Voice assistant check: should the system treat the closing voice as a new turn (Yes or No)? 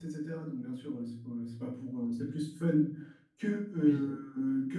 No